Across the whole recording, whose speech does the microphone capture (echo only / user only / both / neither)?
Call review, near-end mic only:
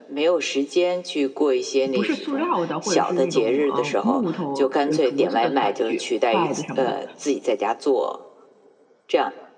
both